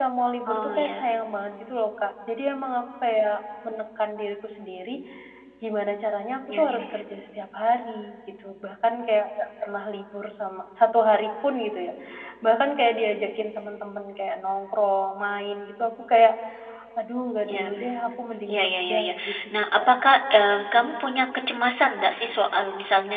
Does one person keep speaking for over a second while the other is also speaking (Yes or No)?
Yes